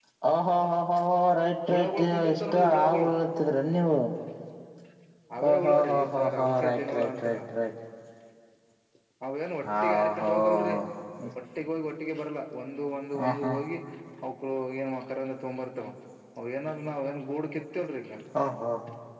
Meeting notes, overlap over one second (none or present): present